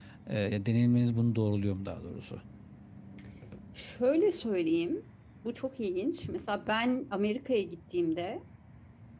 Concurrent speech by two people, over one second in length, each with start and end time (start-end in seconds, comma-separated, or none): none